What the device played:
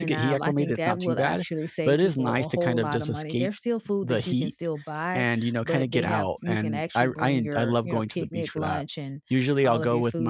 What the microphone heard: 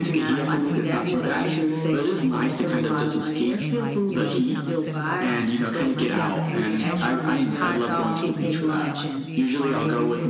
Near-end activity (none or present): present